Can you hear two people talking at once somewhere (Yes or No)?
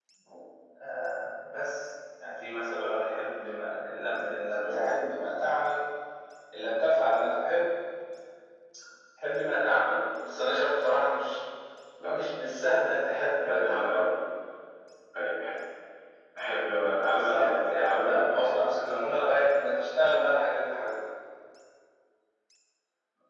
Yes